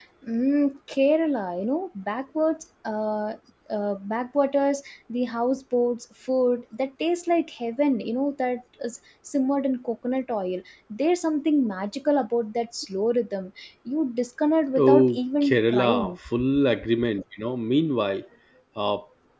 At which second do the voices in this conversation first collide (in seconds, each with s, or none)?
14.8 s